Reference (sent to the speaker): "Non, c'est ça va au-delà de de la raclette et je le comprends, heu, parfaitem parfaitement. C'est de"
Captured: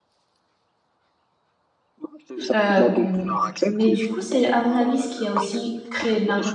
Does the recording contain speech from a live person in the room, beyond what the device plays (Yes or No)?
Yes